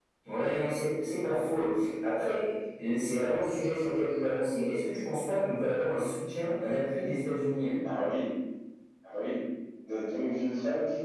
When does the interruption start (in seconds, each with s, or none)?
none